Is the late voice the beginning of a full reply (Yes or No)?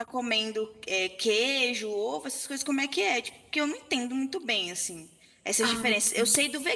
No